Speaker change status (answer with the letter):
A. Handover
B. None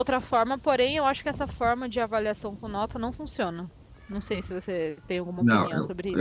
A